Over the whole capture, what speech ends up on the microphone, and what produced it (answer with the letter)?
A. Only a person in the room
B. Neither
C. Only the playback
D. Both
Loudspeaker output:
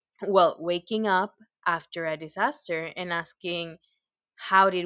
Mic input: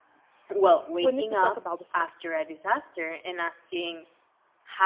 D